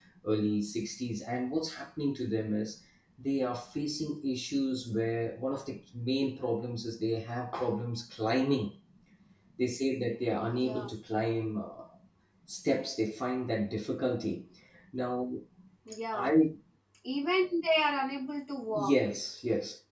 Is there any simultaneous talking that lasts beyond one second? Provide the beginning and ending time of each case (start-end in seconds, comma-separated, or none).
none